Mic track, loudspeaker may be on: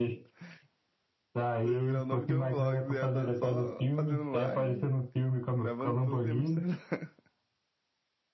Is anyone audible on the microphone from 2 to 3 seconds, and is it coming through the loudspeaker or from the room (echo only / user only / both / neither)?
both